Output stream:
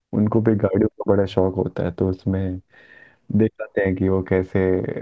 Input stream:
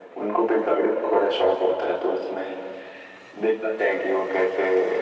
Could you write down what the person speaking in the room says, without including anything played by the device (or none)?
none